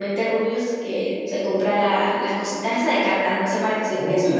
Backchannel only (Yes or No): No